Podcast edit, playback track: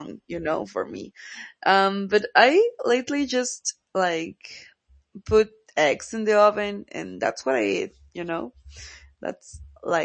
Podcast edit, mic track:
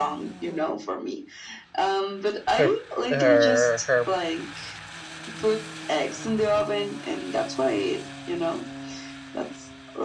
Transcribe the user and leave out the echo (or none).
her her her